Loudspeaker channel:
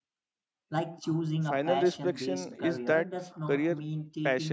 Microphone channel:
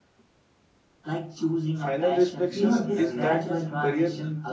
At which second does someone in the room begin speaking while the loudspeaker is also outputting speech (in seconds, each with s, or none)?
2.5 s